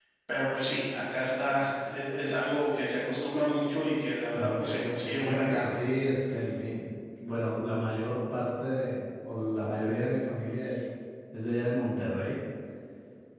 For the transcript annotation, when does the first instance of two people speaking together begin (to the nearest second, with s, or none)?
4 s